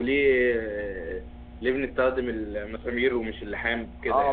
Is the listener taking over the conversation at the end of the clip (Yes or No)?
Yes